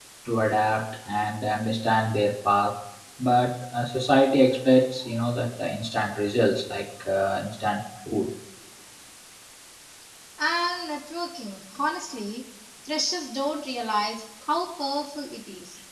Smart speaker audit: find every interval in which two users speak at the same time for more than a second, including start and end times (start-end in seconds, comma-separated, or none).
none